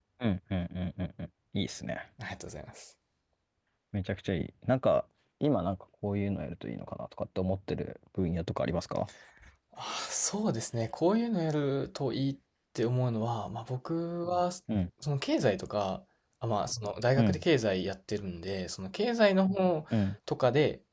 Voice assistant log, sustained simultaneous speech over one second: none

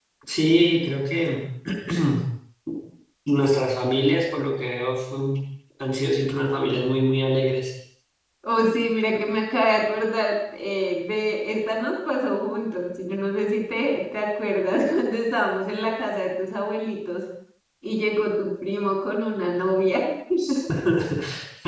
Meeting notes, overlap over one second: none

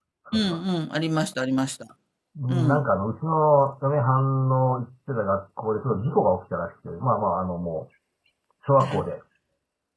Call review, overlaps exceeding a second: none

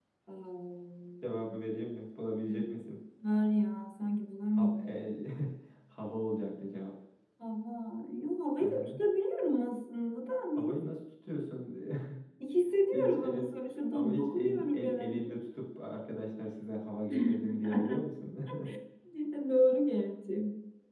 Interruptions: present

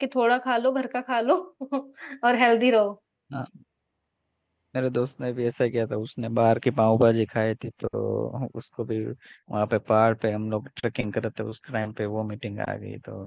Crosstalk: none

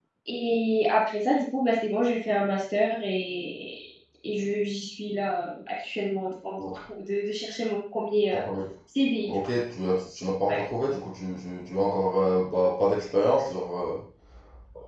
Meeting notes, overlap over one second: none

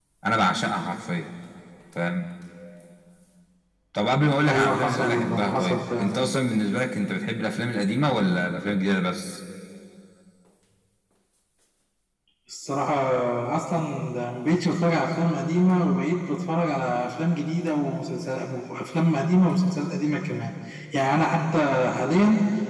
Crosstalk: present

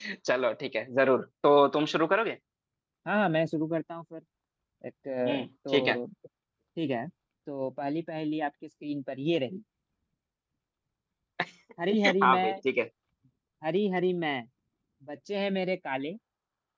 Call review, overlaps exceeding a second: none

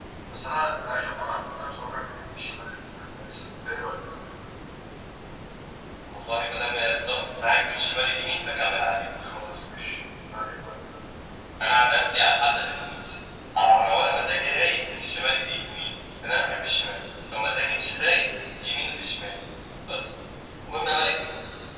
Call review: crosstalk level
none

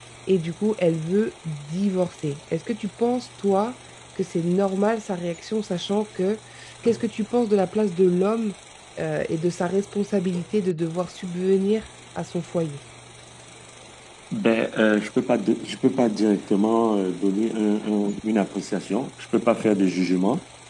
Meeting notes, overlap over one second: none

